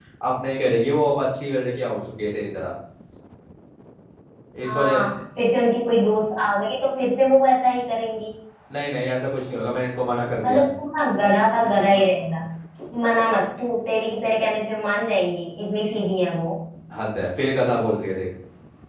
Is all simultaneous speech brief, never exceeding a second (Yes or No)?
Yes